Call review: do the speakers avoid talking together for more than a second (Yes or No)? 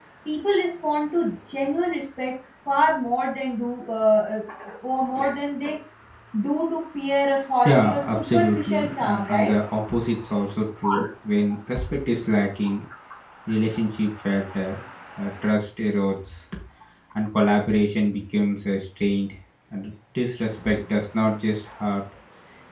No